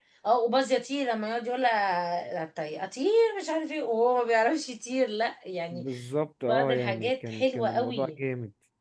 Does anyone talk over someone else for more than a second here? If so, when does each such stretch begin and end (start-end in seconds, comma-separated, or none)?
6.5-8.1